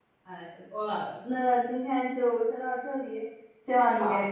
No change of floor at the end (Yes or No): Yes